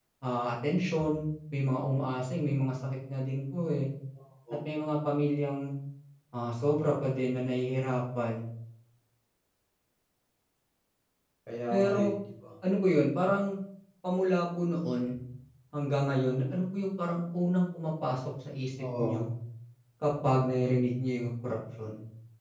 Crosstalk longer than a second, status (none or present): none